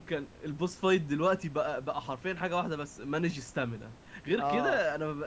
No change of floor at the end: Yes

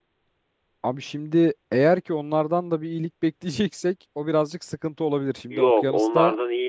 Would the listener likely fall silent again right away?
No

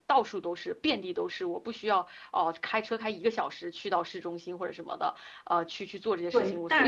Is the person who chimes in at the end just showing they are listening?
No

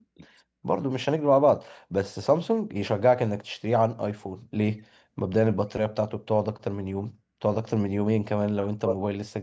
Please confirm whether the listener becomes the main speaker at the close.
Yes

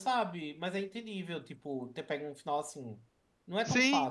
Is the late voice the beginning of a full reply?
Yes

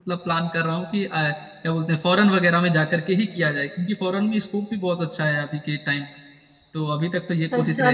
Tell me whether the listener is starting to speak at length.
Yes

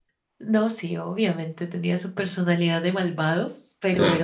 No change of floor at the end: Yes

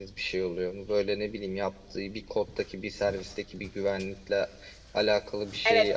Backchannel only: No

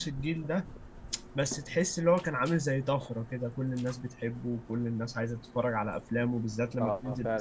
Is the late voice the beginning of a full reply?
Yes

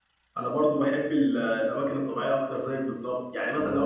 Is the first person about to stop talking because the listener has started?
No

